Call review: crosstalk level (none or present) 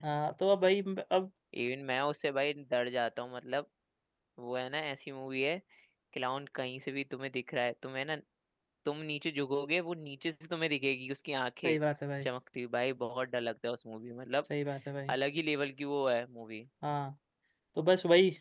none